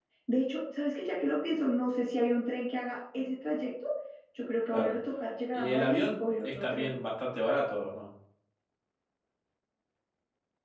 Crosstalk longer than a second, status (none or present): present